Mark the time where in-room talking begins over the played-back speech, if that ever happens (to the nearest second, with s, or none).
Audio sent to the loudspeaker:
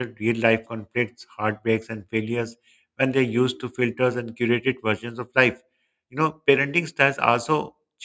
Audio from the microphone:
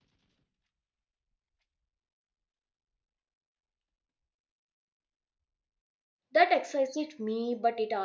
6 s